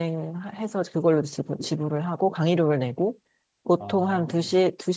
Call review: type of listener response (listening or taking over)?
listening